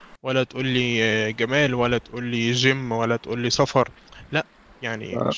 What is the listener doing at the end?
taking over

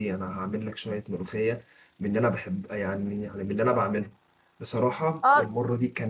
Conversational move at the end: listening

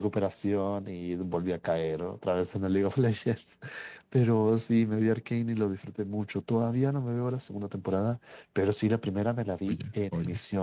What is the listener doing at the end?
listening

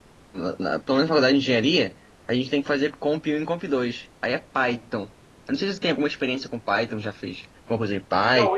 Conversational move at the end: taking over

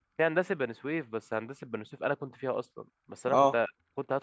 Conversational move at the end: listening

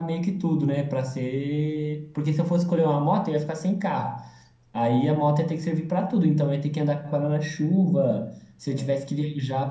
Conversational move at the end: listening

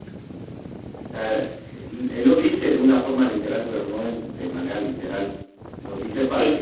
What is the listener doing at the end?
listening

